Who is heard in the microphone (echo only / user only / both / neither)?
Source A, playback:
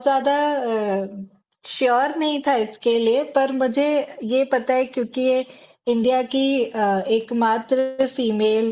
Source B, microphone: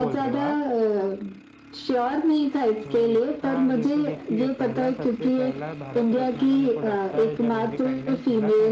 both